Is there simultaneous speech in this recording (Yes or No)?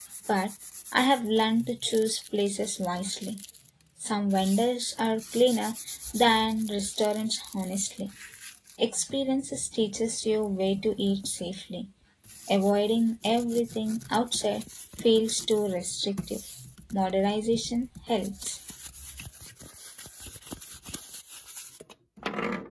No